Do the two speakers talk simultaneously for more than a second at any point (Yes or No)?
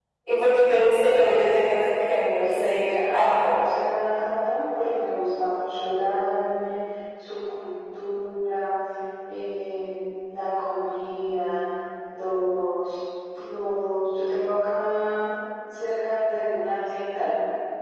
Yes